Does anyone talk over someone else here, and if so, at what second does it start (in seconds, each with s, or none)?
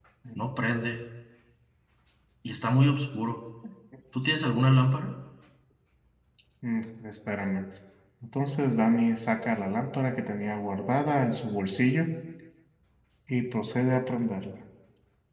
none